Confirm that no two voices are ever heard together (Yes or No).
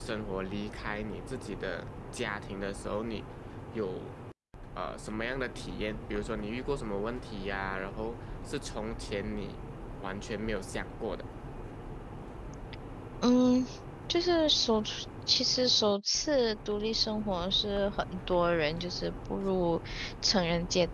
Yes